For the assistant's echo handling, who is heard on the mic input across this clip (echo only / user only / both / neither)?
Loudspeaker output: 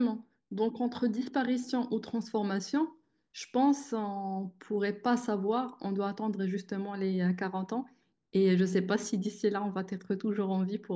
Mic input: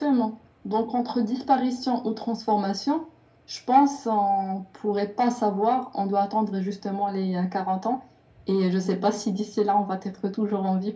echo only